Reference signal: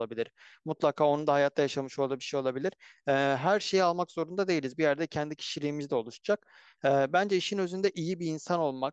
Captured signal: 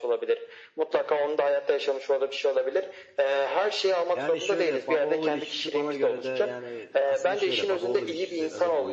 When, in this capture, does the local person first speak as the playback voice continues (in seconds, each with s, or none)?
4.1 s